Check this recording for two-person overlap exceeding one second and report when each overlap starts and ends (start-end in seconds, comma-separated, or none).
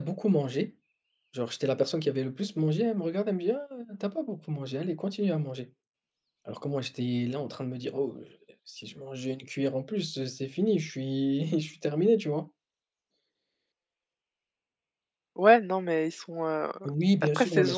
none